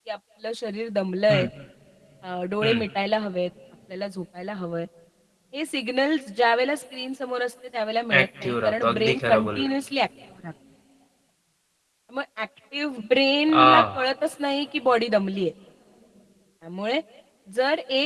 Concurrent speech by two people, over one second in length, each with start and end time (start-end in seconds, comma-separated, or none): 8.2-9.7